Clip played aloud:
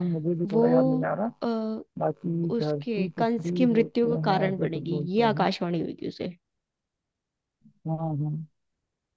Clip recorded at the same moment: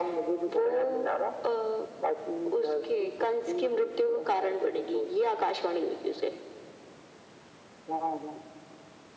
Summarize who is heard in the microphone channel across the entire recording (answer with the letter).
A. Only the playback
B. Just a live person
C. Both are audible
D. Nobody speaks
A